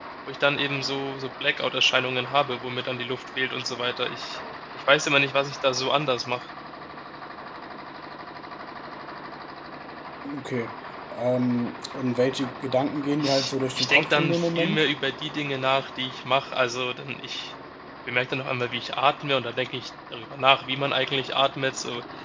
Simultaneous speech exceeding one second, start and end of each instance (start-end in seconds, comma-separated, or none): 13.2-14.9